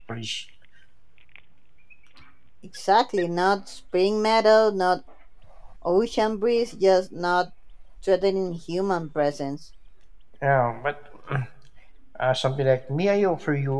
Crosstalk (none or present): none